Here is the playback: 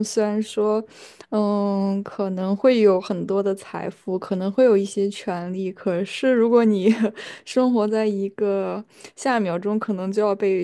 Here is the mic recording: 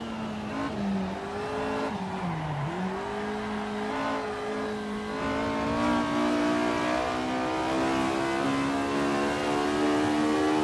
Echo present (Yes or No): No